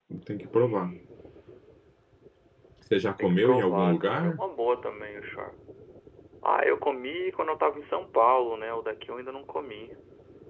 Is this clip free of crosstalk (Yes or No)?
No